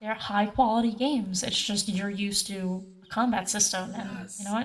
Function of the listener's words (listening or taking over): taking over